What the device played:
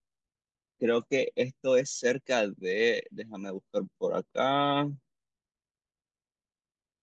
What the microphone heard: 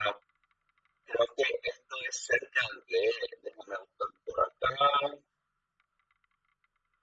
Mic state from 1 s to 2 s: echo only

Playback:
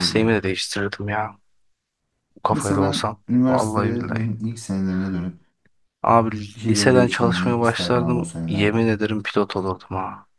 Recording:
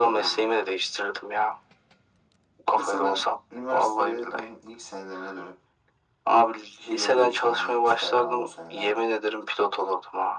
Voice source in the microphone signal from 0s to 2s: echo only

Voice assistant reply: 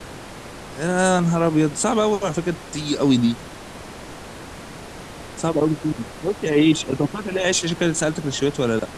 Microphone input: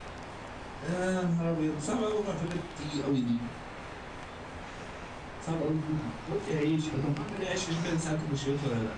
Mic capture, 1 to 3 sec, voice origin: echo only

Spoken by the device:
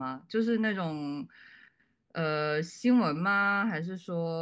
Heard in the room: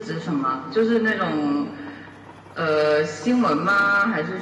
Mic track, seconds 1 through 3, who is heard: echo only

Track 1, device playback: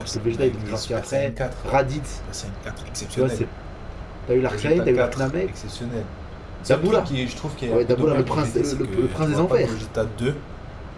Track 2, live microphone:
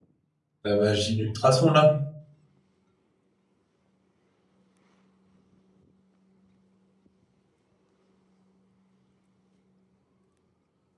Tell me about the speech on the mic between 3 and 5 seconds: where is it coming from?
neither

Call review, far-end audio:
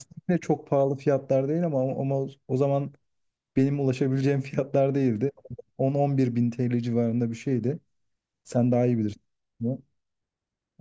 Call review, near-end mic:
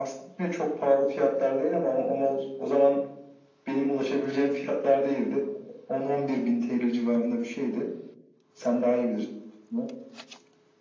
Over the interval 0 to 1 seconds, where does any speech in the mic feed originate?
echo only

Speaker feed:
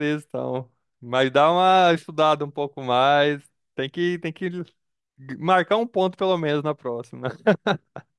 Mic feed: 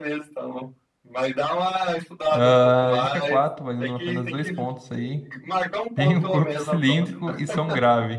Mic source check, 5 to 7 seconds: both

